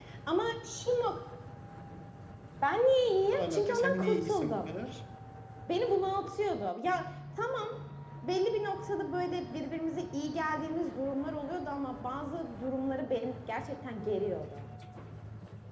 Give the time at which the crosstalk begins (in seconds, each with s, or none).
3.3 s